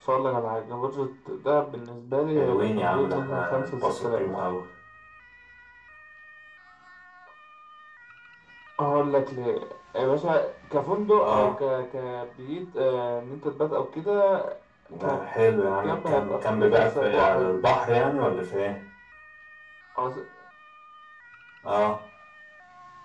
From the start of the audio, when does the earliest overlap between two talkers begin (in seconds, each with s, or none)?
2.4 s